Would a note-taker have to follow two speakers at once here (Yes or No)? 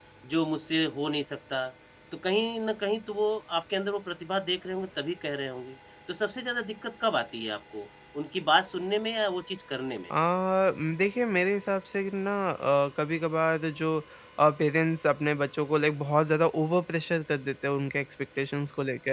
No